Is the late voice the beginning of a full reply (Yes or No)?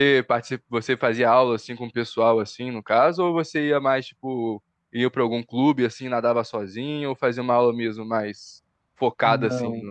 Yes